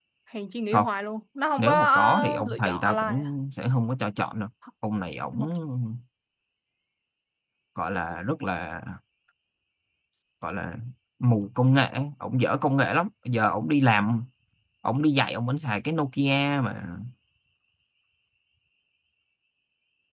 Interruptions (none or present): present